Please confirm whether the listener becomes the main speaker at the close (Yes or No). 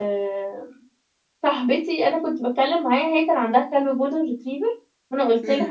No